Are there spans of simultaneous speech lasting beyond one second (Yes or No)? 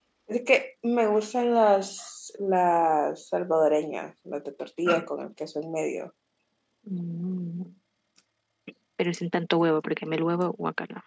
No